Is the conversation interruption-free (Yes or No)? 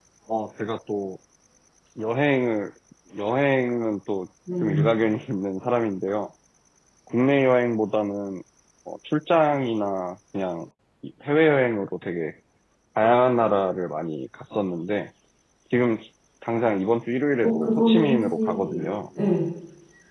No